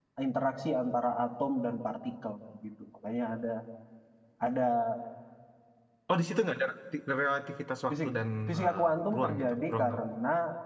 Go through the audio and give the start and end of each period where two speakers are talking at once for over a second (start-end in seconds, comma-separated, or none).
8.5-9.8